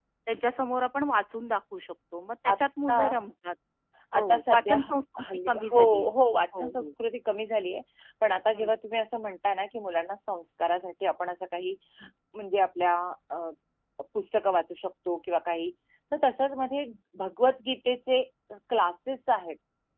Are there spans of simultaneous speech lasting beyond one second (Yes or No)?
Yes